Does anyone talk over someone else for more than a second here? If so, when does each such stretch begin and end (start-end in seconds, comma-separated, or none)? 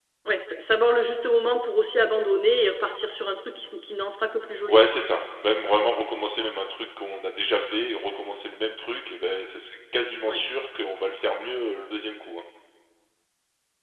none